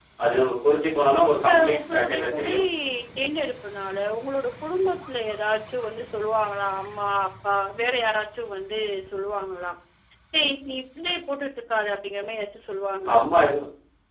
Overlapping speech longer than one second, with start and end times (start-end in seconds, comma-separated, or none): 1.3-2.5